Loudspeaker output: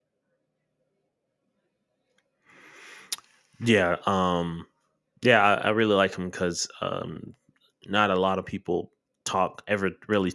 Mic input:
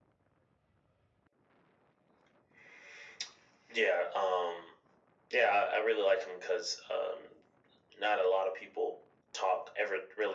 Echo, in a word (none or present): present